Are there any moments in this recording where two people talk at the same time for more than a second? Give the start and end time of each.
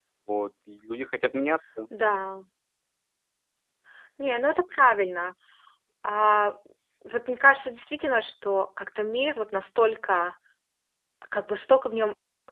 none

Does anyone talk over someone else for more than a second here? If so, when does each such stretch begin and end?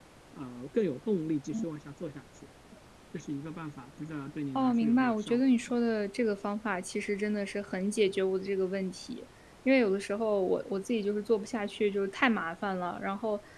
4.5-5.8

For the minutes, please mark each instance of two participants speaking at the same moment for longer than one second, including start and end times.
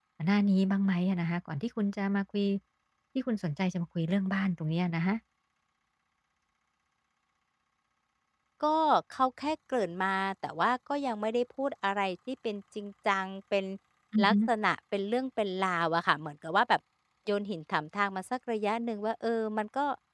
none

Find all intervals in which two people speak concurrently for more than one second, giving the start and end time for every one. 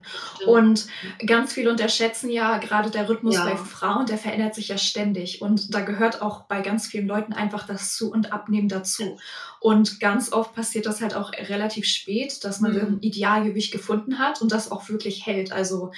none

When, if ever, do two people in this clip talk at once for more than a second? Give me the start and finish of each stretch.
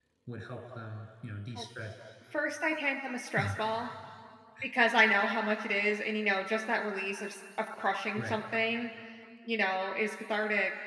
none

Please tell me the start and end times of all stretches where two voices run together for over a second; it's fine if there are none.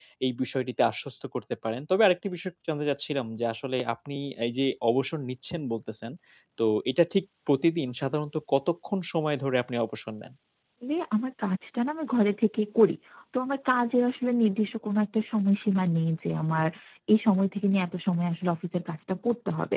none

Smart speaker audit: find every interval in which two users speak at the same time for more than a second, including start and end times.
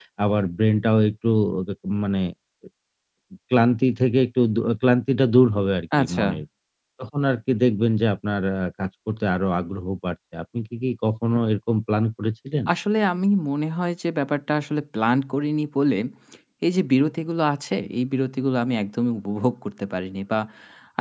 none

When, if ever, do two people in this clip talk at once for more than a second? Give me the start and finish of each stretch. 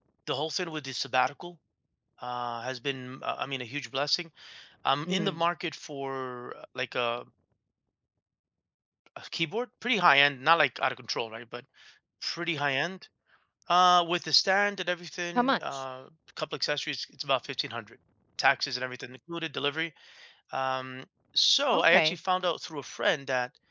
none

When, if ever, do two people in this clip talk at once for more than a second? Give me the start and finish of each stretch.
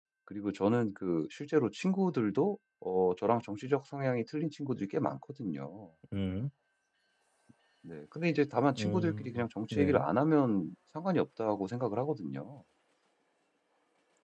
8.8-10.1

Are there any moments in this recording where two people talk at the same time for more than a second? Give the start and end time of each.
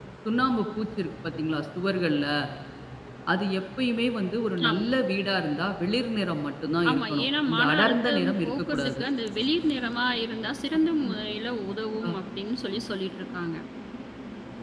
6.9-9.0

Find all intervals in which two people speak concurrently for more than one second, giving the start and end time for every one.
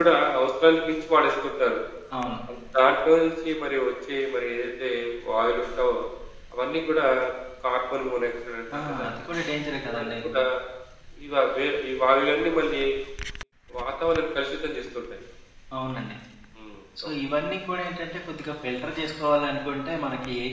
none

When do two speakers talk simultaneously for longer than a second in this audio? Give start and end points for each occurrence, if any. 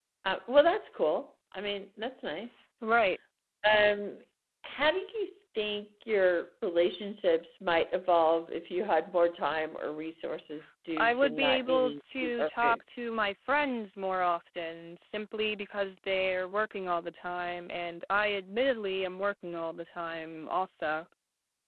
11.0-12.8

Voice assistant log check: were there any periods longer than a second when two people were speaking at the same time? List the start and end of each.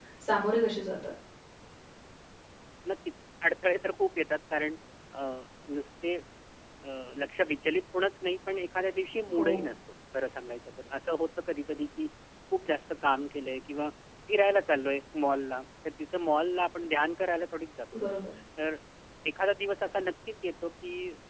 none

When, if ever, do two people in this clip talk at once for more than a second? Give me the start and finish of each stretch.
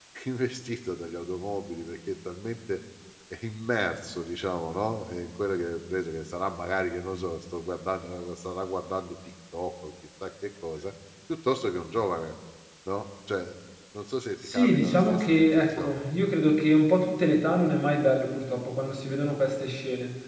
14.4-16.0

